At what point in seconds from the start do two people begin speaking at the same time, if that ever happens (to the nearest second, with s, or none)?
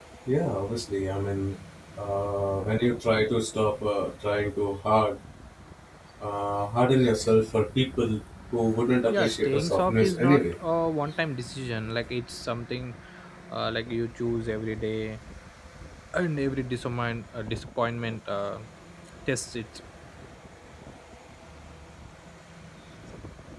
9 s